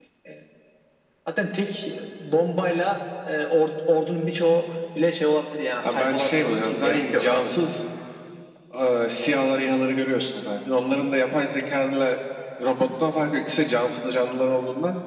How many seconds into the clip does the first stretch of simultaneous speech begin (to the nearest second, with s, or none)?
6 s